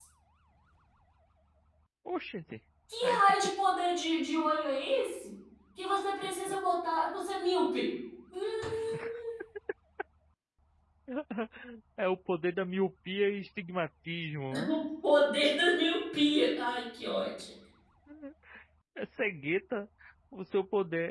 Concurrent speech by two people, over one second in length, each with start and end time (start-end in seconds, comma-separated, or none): none